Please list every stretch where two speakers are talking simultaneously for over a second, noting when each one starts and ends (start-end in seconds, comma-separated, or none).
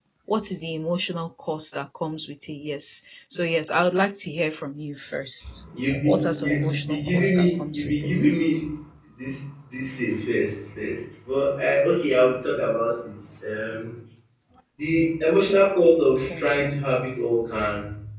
6.1-8.3